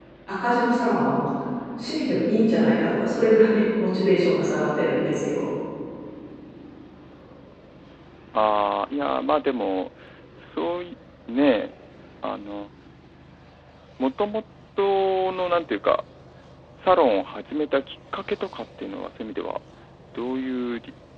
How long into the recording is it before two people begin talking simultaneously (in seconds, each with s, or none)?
none